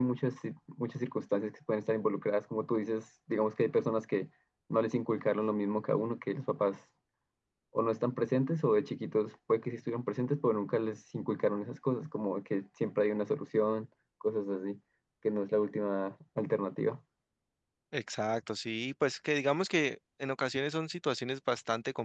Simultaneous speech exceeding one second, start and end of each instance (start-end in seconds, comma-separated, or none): none